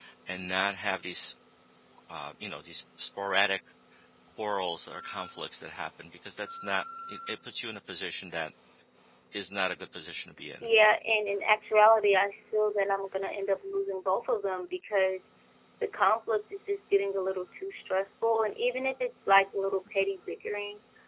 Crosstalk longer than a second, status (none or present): none